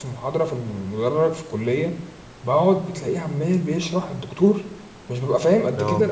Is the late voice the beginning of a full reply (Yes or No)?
No